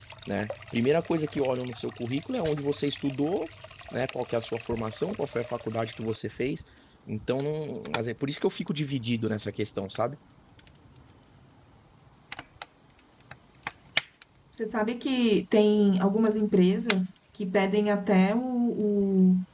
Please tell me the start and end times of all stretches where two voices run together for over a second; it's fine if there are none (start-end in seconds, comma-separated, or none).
none